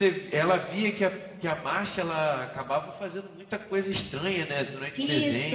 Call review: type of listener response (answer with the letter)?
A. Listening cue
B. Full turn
B